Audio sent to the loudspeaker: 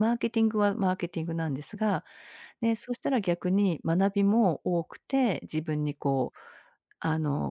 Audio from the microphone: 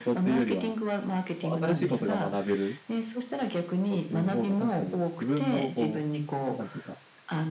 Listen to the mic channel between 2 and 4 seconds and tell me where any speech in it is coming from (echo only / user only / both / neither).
both